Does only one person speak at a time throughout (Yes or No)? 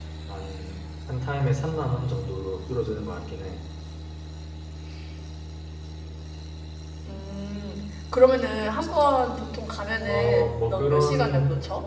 No